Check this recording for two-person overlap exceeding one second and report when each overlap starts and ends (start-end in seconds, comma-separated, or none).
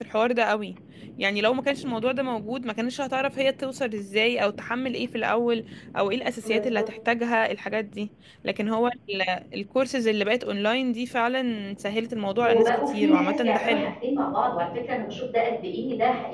12.4-13.9